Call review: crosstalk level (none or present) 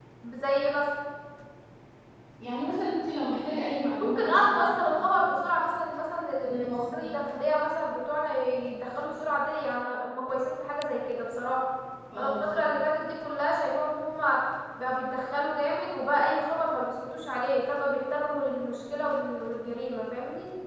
present